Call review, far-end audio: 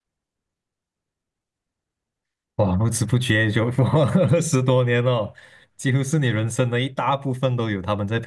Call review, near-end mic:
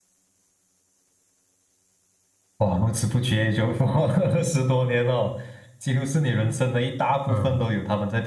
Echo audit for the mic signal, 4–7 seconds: echo only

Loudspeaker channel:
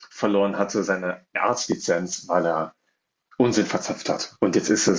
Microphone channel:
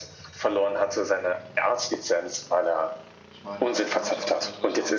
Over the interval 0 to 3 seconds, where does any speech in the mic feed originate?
echo only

